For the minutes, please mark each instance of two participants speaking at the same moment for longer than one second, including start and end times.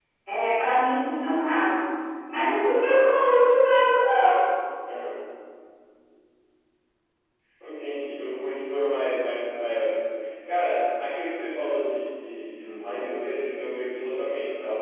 none

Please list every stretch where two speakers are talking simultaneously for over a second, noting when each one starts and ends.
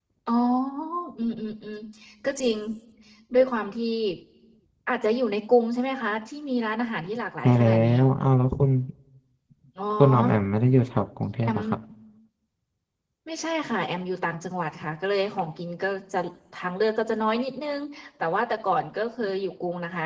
none

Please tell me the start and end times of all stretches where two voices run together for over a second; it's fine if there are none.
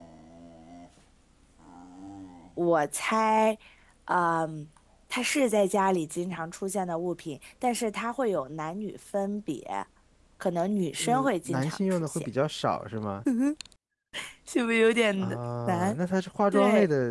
11.0-12.3

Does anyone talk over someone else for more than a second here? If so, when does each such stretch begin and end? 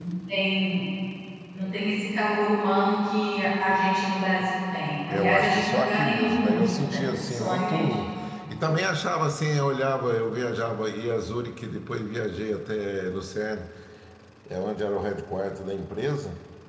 5.1-8.0

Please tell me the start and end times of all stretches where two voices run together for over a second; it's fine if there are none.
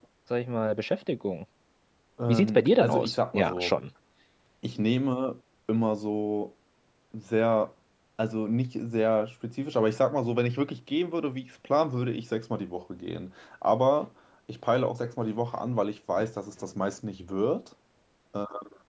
2.3-3.8

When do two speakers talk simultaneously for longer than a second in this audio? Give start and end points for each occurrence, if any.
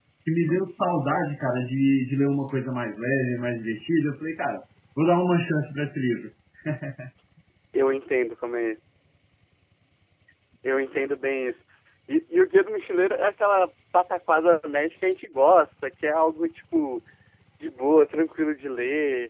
none

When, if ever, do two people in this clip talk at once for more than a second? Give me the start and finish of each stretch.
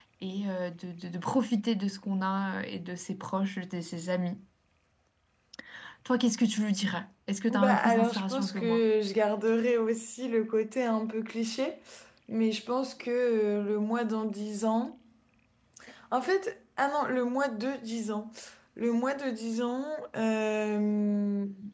7.5-8.8

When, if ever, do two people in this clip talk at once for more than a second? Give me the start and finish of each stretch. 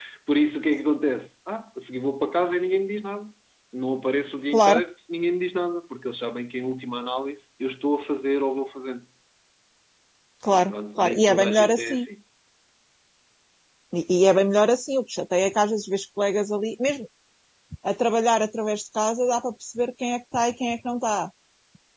10.5-12.1

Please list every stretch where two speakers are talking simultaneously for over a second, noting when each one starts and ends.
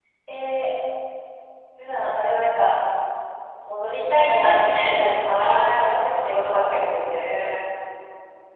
5.3-7.2

